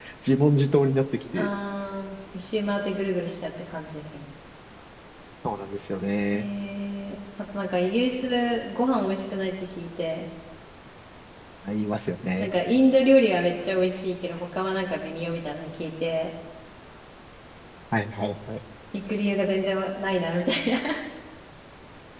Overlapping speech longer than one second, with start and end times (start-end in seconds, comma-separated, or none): none